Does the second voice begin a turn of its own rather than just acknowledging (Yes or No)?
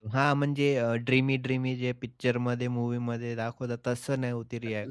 Yes